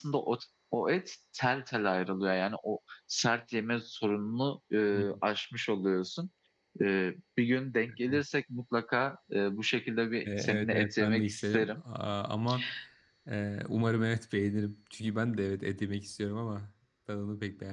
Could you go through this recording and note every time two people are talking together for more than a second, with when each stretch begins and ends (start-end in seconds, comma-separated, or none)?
10.2-11.7